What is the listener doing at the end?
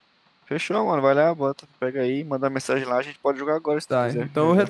taking over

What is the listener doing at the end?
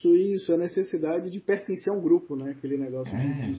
listening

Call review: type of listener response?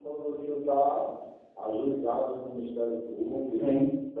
listening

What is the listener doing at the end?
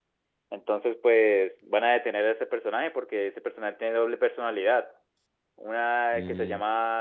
listening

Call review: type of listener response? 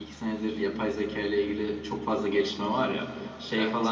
listening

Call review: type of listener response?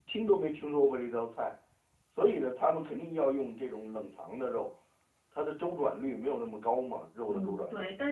taking over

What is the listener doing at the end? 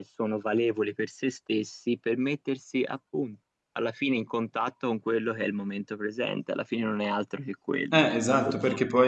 taking over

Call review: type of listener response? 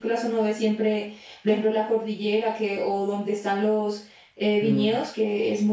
listening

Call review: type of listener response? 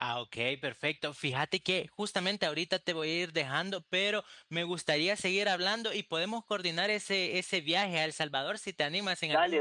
taking over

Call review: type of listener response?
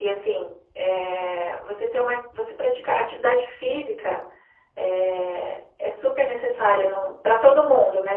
listening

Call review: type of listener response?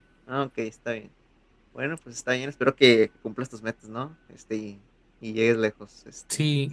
taking over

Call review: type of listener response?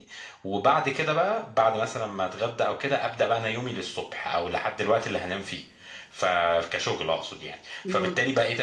listening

